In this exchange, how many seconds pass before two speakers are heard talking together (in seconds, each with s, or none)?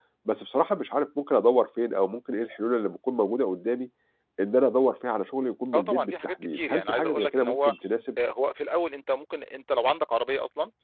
5.7 s